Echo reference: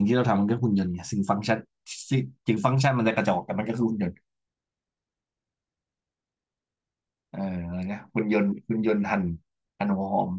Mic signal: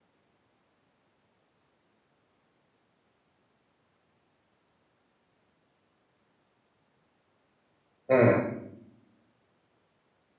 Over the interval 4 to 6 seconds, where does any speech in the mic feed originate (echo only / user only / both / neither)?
neither